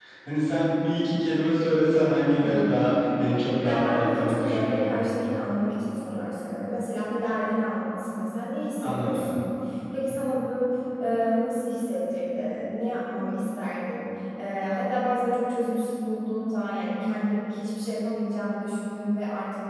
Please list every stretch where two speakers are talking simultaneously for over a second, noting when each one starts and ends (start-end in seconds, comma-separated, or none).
3.6-5.0